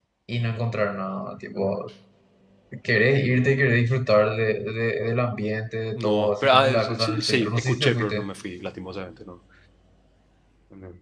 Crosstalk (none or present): present